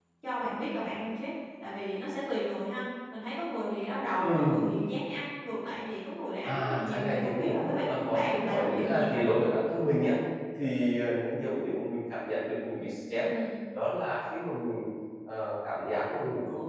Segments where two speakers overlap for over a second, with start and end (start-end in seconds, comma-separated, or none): 6.5-9.3